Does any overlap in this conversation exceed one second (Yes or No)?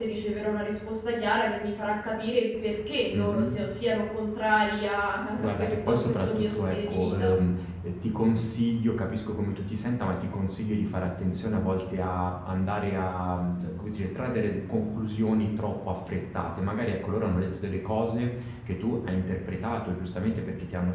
Yes